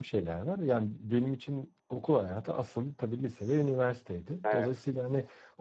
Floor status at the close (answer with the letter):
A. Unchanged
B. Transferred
A